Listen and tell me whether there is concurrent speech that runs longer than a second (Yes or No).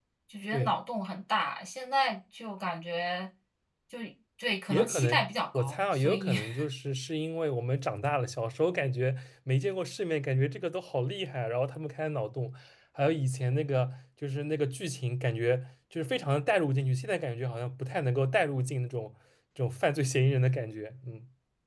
Yes